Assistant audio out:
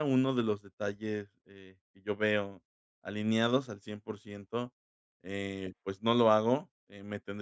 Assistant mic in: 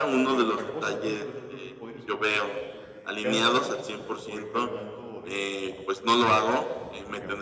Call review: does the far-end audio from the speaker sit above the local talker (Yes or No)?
Yes